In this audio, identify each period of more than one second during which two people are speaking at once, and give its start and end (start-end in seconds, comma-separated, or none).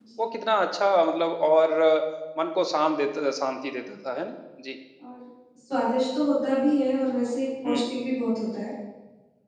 none